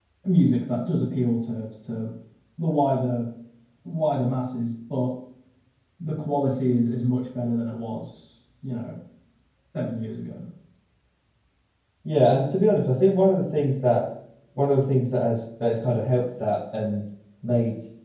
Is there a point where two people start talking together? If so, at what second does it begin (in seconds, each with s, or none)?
none